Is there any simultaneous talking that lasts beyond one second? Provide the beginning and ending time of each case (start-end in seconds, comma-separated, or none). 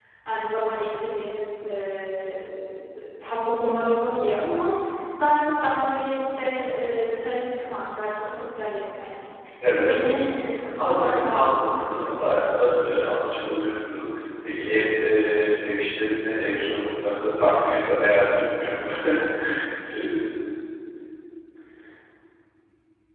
10.8-12.2